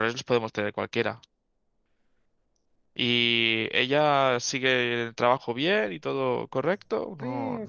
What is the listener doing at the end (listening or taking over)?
taking over